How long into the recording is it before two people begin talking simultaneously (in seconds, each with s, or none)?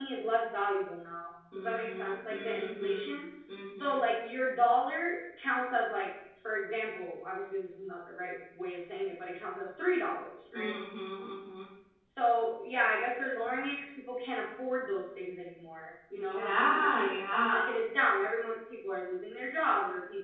1.5 s